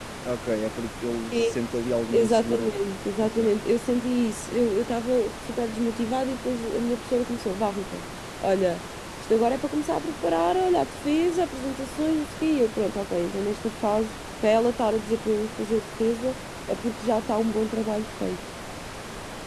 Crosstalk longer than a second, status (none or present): none